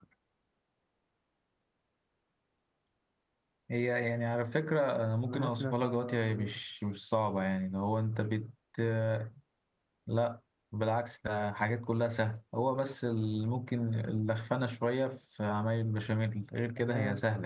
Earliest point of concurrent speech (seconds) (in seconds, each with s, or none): 5.2 s